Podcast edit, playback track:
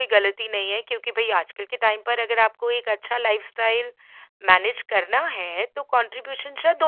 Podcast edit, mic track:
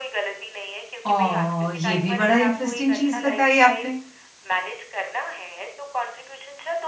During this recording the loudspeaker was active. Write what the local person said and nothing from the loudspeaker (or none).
ओह! ये भी बड़ा इंटरेस्टिंग चीज़ बताई आपने।